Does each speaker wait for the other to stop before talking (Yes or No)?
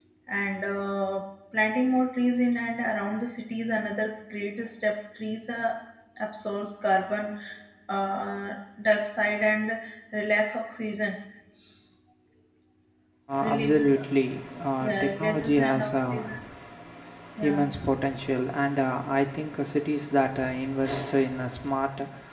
No